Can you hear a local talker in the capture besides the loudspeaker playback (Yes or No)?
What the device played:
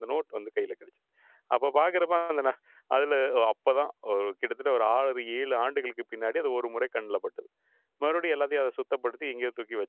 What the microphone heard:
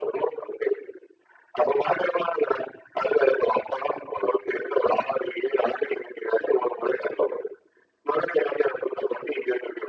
No